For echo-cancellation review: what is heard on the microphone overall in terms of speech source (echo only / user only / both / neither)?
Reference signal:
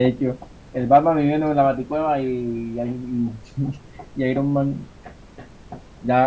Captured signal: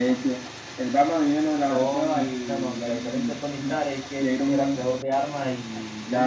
both